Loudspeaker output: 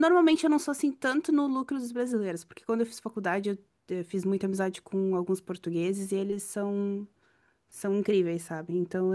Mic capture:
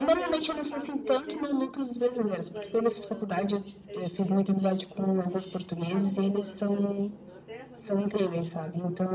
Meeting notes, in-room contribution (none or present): present